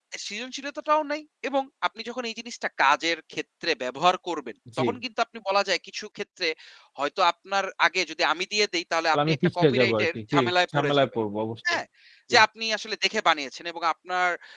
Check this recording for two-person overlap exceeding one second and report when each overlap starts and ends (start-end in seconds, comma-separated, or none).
9.1-11.1